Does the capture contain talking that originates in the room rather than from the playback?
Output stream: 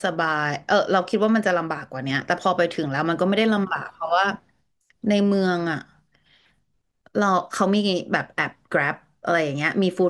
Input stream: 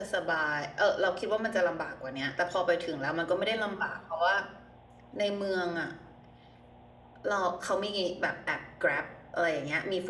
No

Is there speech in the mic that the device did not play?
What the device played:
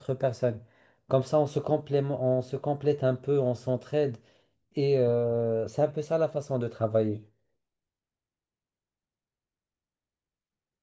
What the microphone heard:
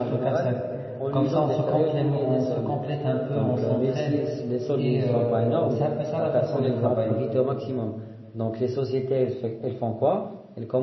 Yes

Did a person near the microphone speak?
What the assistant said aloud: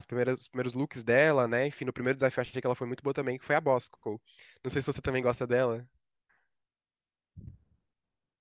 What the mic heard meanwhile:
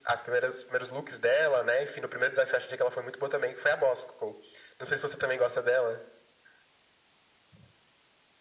No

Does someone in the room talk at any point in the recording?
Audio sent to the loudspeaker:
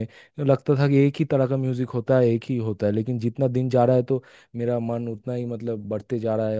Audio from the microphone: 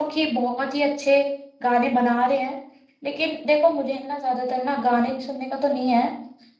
Yes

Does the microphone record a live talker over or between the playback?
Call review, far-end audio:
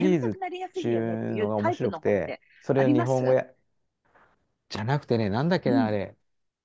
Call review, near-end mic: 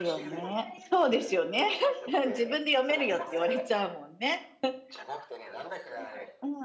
Yes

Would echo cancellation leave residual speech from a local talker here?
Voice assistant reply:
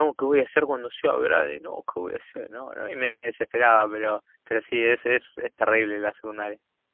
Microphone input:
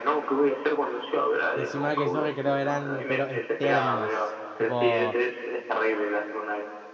Yes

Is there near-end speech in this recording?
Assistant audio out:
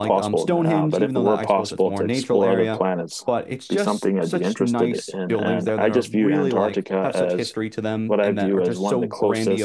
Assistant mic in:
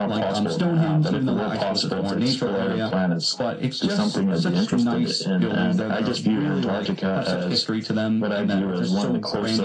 No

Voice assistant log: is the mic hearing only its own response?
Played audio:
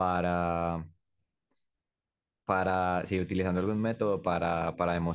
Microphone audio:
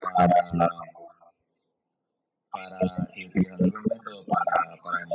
Yes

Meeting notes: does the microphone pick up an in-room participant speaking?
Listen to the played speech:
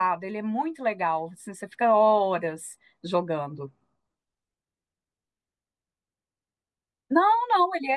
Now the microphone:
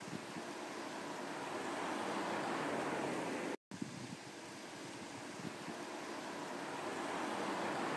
No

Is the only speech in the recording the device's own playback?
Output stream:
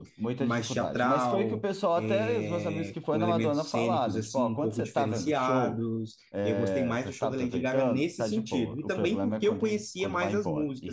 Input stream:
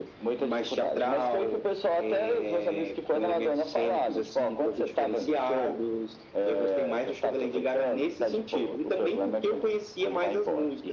Yes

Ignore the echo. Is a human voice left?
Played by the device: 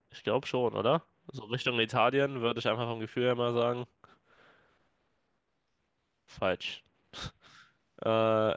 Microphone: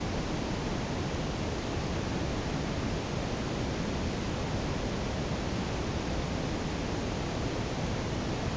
No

